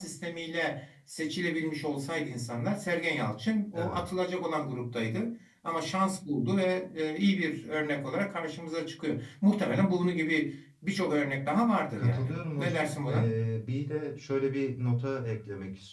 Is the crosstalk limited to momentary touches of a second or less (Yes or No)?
No